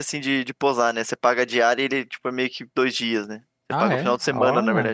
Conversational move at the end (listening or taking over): taking over